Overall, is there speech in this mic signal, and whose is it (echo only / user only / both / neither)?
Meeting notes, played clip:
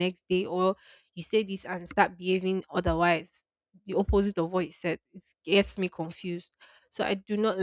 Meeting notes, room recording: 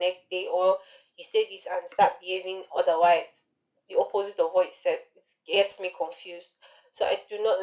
echo only